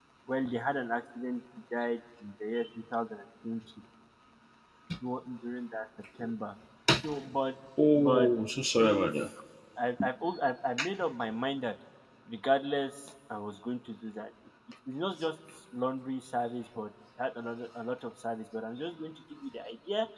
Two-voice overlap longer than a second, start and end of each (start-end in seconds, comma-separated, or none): none